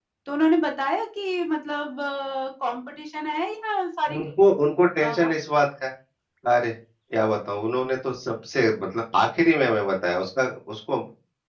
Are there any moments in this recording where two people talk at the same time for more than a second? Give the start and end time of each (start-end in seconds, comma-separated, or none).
none